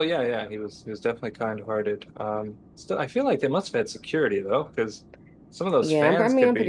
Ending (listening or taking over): taking over